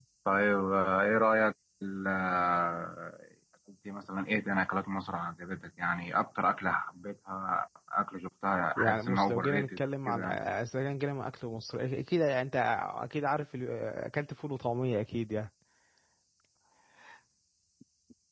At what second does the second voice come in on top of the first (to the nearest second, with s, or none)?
9 s